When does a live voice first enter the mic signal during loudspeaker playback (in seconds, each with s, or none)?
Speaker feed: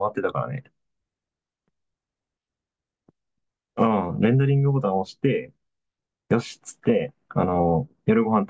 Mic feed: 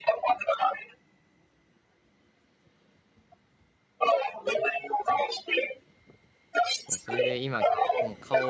6.9 s